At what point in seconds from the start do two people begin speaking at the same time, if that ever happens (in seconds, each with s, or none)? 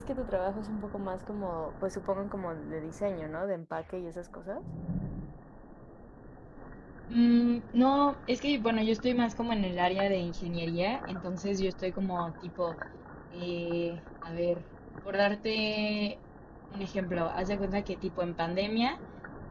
none